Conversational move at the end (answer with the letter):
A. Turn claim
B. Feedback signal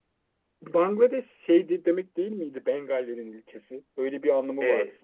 A